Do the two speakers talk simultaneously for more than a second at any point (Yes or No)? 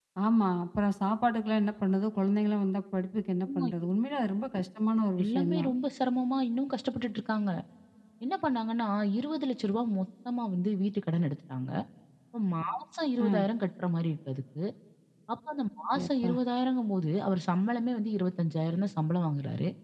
No